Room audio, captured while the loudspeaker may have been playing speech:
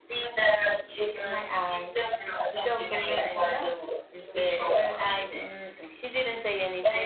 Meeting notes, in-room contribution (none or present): present